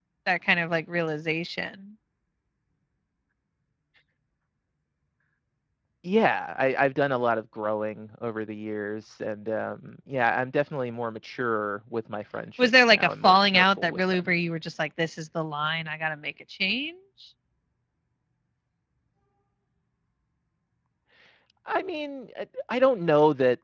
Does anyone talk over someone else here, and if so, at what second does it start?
12.6 s

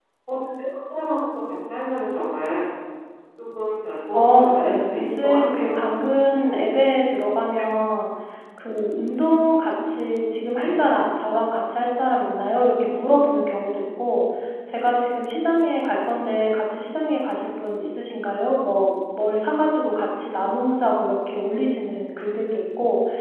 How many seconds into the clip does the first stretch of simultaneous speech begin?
4.1 s

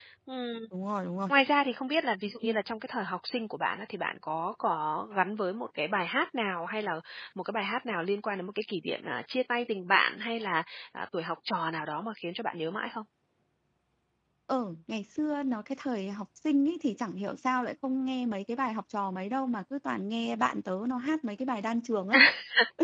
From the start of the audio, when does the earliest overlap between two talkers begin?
none

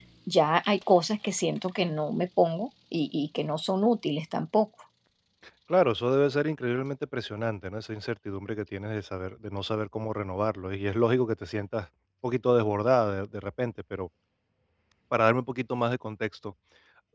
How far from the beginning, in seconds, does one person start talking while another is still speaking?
none

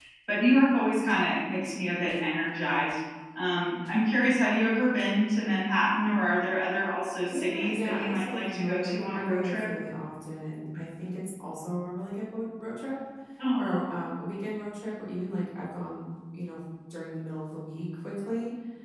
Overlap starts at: 7.3 s

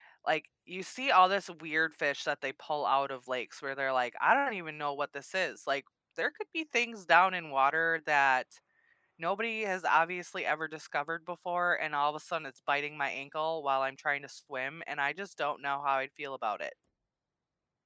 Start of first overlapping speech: none

